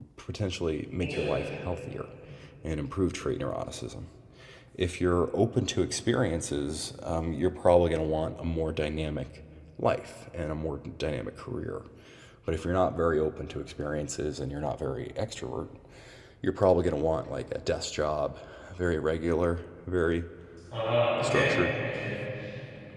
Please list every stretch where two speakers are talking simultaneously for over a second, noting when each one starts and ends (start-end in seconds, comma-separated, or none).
none